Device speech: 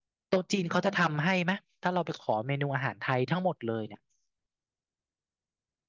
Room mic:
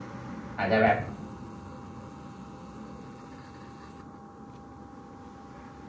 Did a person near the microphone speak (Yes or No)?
Yes